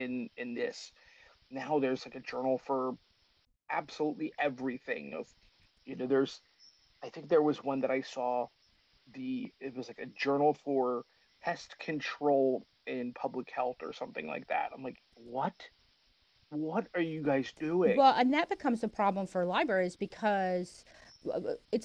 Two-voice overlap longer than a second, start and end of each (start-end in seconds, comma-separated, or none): none